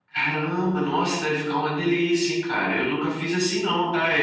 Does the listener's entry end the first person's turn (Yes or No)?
No